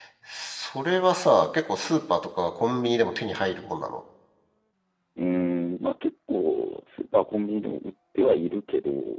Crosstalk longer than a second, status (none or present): none